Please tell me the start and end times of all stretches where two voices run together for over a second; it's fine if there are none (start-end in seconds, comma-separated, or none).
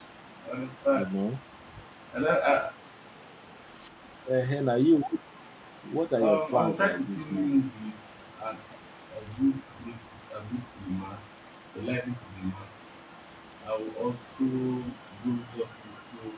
6.2-7.5